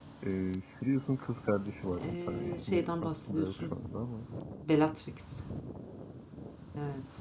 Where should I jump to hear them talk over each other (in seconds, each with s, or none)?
1.9 s